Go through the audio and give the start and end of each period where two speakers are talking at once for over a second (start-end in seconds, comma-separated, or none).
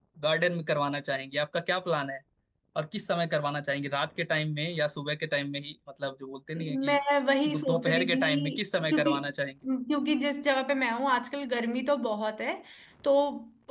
7.5-9.1